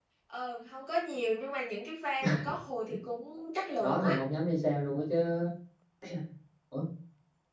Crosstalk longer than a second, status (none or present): none